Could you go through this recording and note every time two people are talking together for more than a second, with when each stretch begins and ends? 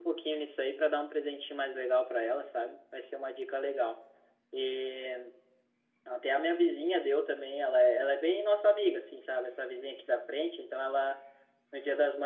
none

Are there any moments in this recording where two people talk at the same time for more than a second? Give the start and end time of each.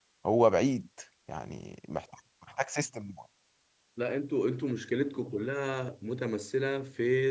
none

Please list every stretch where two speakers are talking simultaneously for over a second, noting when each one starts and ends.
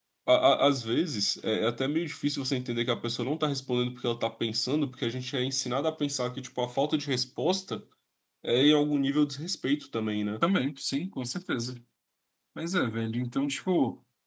none

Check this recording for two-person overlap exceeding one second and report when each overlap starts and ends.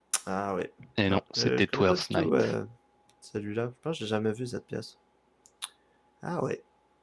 1.1-2.5

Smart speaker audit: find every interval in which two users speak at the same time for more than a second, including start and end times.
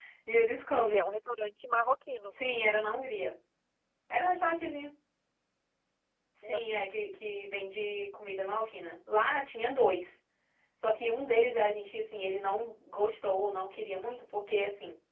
none

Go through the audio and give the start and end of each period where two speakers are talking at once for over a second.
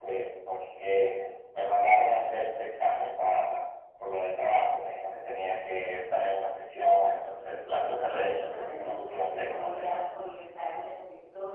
7.9-10.0

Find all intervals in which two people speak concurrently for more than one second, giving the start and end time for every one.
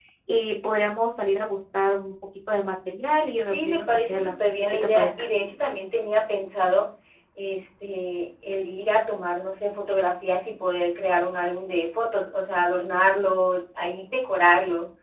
3.5-5.3

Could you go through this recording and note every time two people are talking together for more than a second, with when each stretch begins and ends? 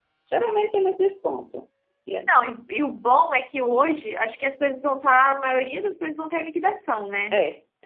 none

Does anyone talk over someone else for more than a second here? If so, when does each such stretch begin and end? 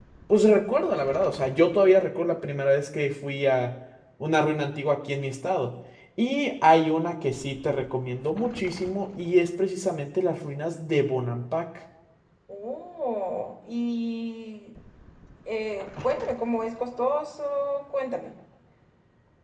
none

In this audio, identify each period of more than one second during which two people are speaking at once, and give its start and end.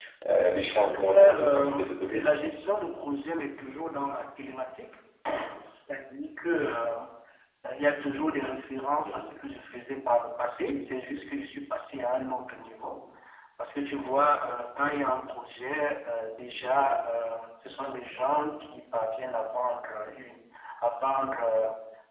0.8-2.2

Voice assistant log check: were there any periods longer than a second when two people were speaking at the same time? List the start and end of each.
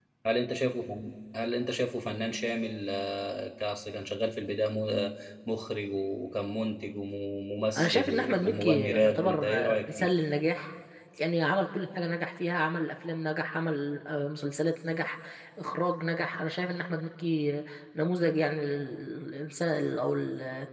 7.8-10.1

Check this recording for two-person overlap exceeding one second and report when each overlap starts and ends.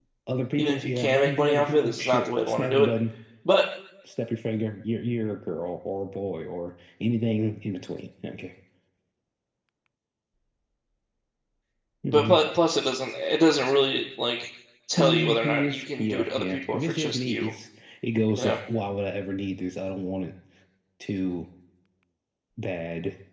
0.6-2.9, 15.0-17.5

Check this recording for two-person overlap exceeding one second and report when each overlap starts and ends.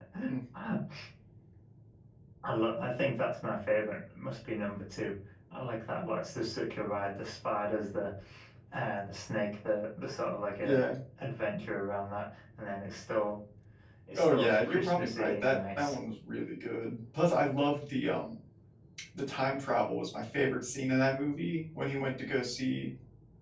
14.2-16.0

